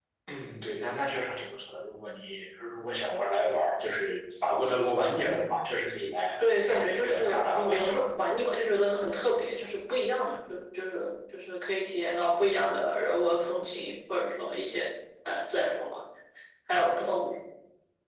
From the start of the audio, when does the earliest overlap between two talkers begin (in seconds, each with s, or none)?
6.8 s